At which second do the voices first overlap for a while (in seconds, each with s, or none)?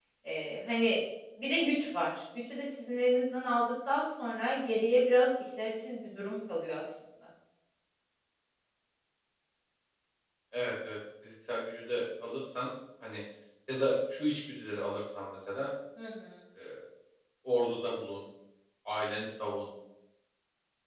none